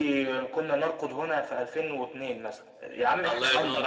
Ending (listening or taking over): taking over